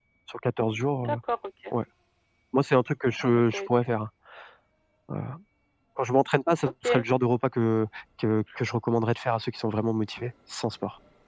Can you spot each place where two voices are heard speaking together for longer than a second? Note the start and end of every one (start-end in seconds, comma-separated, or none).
none